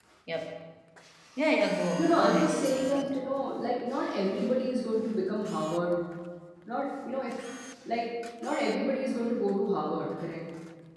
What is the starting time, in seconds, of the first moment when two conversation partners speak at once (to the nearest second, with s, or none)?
2 s